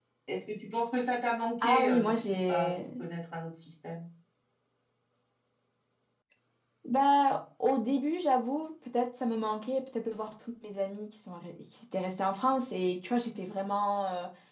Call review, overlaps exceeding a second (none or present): present